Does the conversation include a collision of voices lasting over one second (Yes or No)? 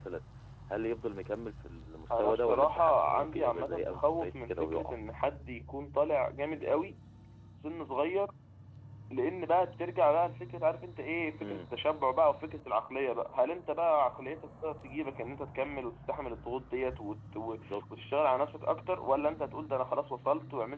Yes